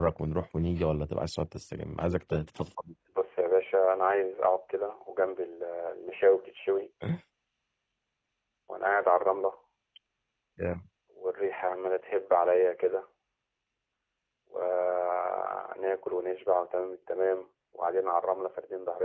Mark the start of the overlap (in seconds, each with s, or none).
none